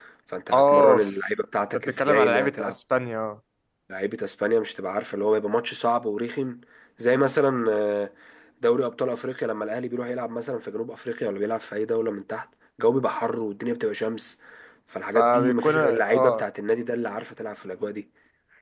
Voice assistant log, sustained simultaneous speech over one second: present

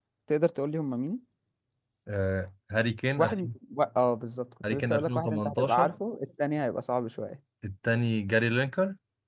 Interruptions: present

